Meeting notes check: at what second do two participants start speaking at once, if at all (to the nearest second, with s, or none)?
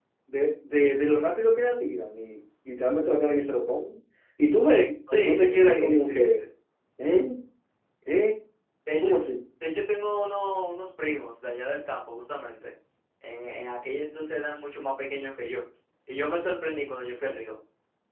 5 s